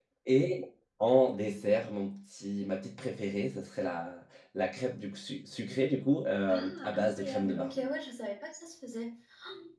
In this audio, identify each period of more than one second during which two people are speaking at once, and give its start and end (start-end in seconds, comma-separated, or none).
6.5-7.8